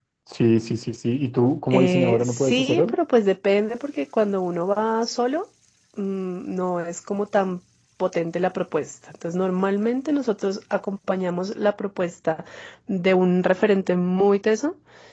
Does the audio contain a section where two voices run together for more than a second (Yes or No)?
Yes